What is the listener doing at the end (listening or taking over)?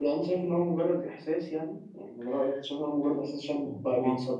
listening